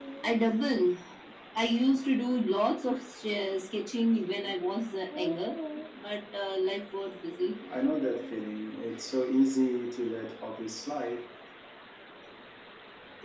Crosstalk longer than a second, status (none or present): none